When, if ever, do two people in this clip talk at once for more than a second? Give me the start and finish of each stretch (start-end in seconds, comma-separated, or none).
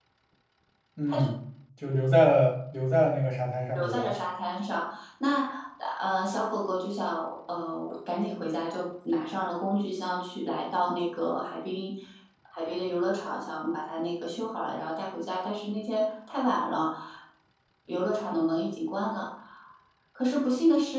none